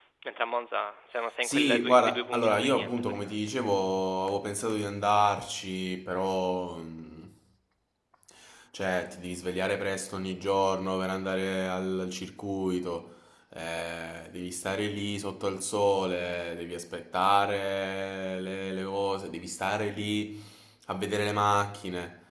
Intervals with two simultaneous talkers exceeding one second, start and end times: 1.4-3.4

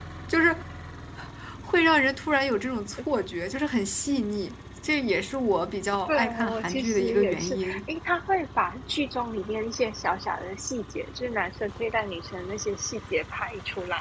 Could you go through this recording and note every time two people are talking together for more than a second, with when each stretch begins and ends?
6.1-7.8

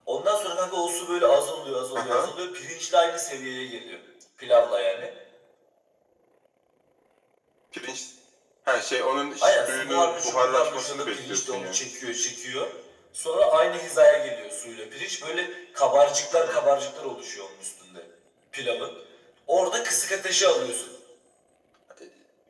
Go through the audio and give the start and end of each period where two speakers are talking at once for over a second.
9.4-11.8

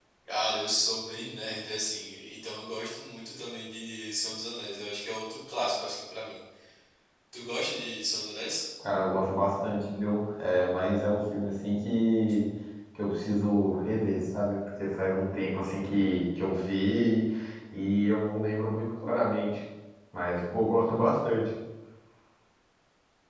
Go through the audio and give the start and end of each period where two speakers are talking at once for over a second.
none

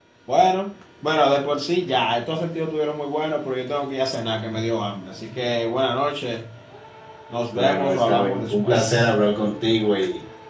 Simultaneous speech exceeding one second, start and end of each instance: 7.5-9.1

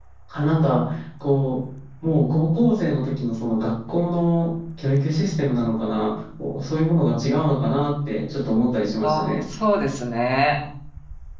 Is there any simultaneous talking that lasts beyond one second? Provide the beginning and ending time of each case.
none

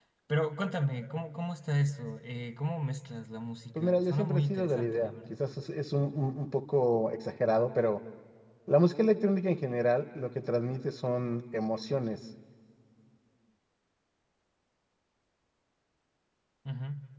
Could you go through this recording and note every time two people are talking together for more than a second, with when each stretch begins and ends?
3.8-5.4

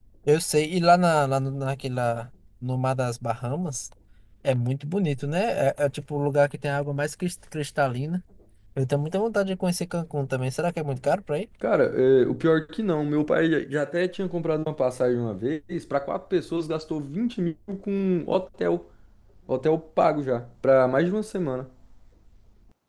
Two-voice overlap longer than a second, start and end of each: none

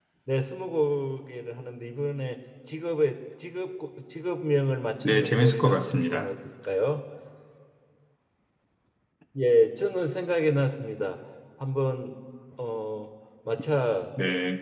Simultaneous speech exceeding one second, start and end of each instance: 5.0-6.3

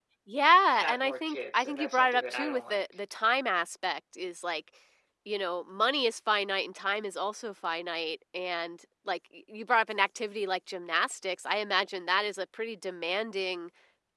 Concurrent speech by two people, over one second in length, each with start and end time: 0.7-2.8

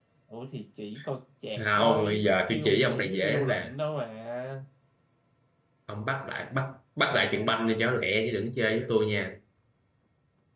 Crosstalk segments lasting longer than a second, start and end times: 1.6-3.7

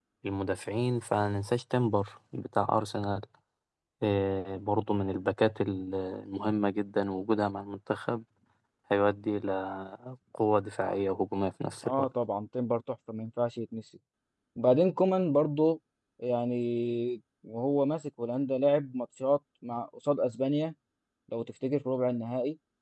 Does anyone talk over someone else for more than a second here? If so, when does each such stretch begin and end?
none

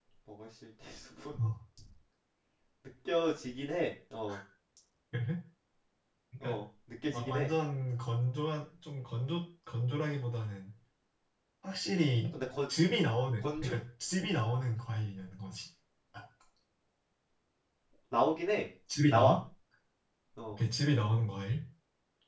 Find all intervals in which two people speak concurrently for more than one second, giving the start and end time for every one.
none

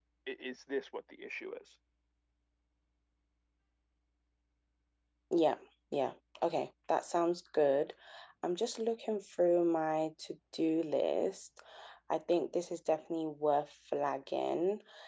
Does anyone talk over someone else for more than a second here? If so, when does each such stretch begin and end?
none

